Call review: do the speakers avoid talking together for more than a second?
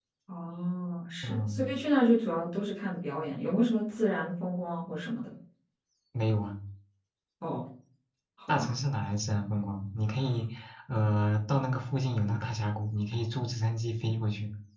Yes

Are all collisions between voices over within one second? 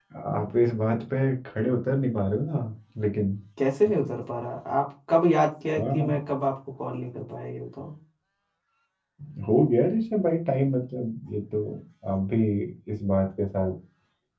Yes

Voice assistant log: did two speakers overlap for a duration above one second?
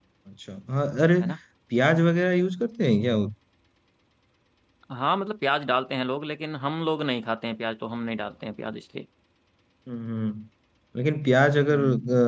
No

